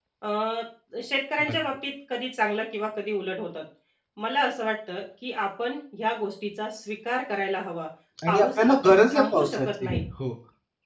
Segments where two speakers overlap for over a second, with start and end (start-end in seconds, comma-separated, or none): 8.3-10.0